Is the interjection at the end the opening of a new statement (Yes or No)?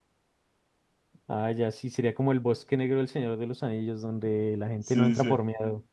Yes